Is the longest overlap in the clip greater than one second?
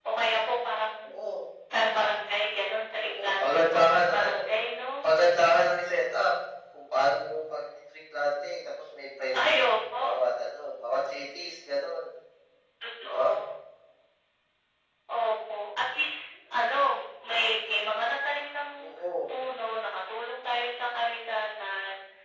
Yes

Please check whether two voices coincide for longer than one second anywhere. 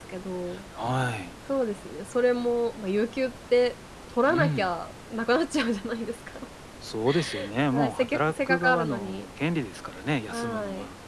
Yes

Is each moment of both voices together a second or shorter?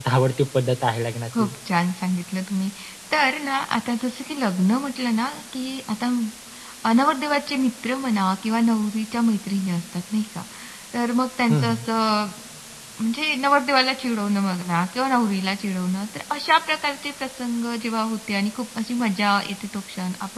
Yes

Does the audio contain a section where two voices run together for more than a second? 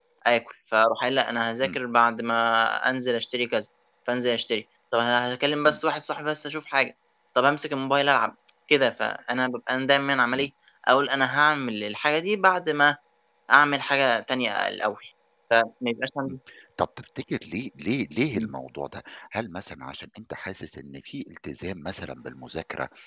No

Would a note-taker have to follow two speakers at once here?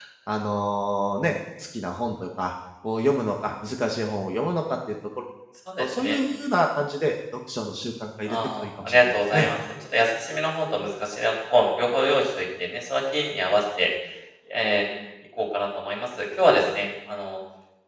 Yes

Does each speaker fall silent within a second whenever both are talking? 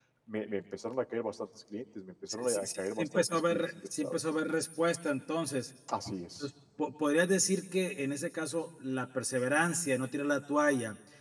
No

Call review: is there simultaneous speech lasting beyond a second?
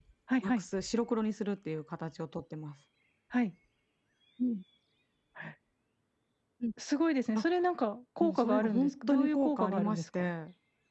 Yes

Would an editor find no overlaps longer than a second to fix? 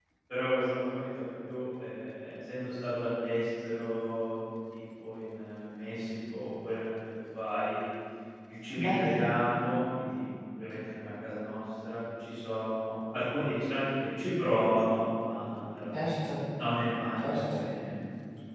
Yes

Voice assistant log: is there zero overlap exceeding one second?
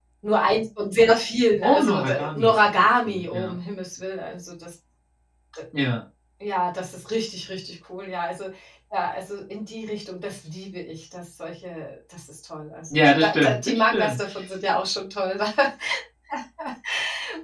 No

